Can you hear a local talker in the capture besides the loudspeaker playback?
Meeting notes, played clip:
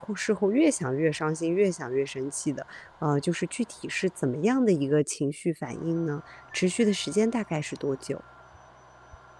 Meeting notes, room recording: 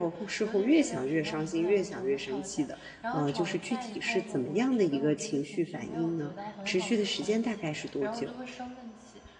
Yes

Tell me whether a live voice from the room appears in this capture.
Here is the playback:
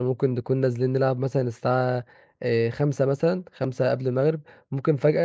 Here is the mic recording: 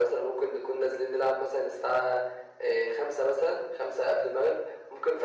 No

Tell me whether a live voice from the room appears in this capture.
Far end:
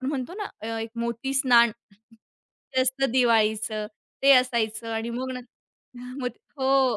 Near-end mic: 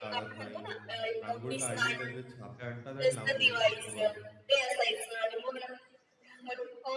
Yes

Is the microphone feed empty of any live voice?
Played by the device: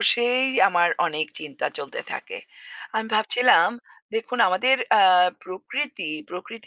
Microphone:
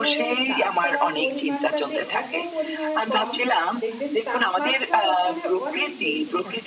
No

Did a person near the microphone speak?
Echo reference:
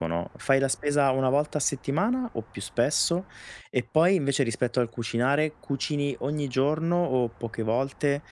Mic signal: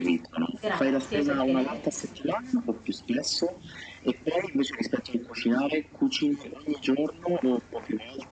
Yes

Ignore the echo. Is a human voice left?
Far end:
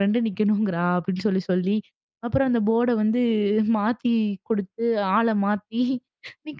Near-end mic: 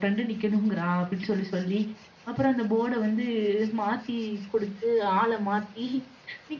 No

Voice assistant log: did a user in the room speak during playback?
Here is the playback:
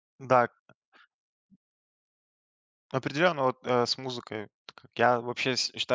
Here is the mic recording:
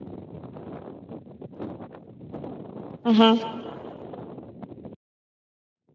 Yes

